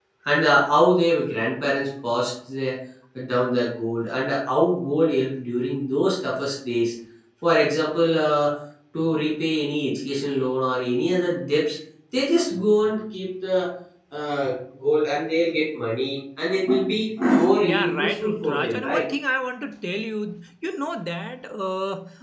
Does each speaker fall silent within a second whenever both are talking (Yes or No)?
No